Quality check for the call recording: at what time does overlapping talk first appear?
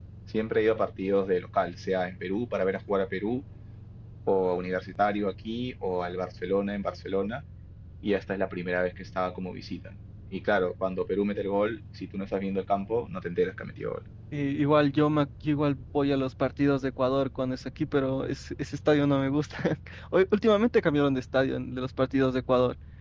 none

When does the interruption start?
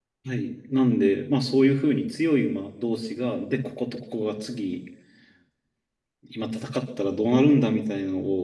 none

